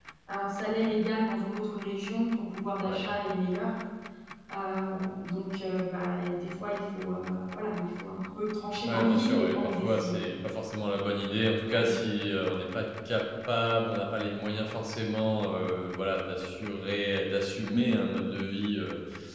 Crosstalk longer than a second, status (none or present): present